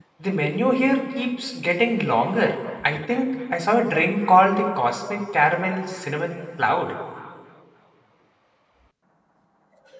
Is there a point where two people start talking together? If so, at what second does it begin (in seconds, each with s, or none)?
none